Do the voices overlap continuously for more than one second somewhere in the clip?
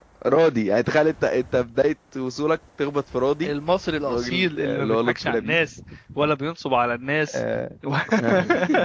Yes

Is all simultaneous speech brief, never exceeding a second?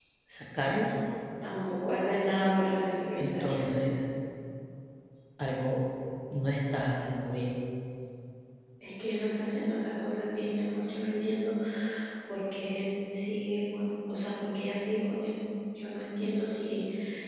Yes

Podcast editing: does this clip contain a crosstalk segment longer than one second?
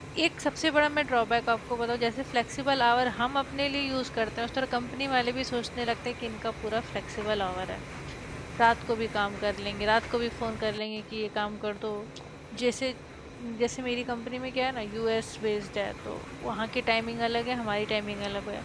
No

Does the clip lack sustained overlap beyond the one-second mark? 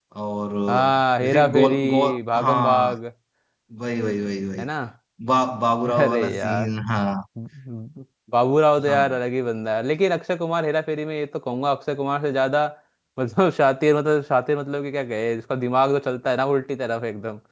No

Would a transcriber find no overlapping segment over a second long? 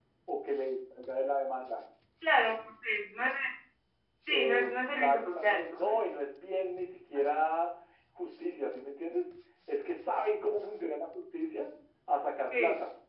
No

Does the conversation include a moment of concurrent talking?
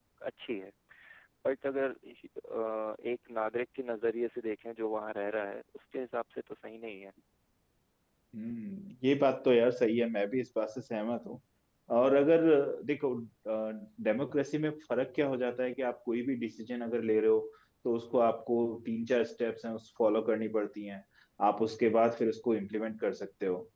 No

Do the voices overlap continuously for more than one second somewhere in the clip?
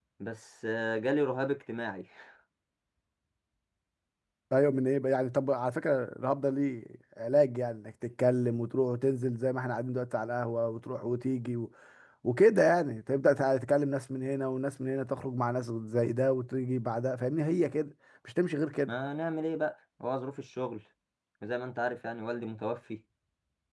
No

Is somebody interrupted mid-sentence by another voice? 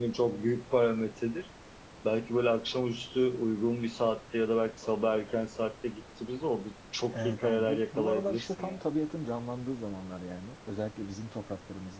Yes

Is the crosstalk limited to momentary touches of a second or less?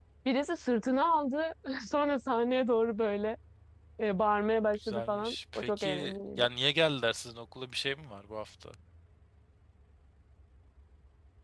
No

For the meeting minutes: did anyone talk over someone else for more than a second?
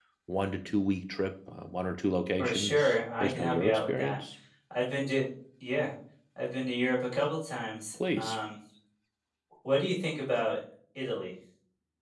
Yes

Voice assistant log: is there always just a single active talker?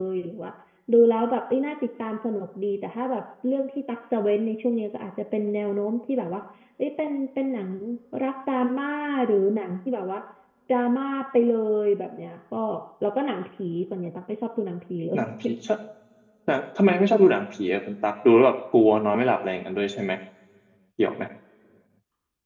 Yes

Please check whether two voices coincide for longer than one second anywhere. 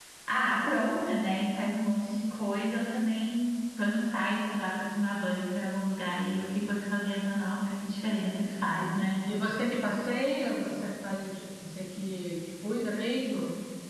No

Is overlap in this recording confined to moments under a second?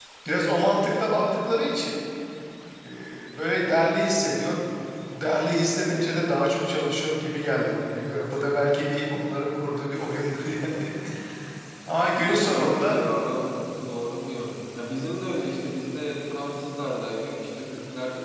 Yes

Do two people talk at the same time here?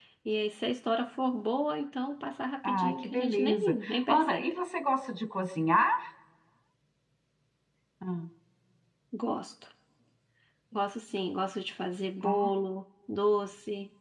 Yes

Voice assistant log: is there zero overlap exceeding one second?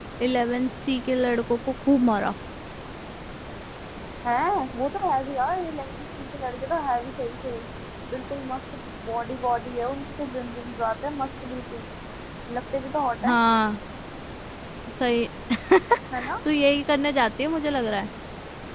Yes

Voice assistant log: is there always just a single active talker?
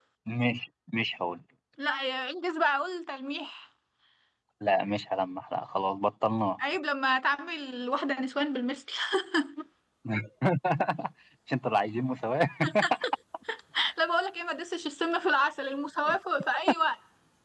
Yes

